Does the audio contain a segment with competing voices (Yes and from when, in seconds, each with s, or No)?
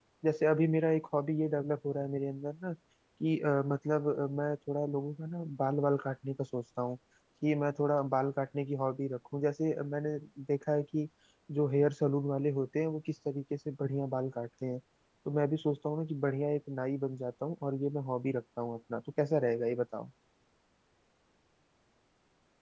No